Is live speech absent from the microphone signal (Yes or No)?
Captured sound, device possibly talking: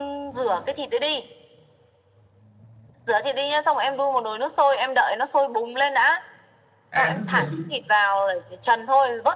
No